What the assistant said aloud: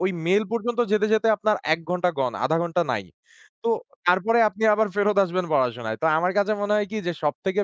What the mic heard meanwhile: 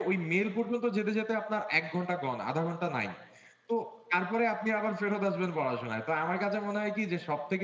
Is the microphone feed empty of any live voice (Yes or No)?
Yes